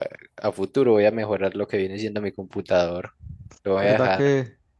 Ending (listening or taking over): taking over